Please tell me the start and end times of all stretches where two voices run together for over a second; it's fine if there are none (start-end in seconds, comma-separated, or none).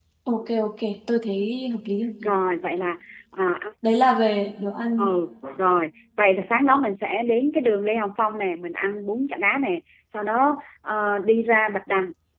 none